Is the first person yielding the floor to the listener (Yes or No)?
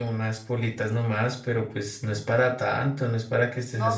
Yes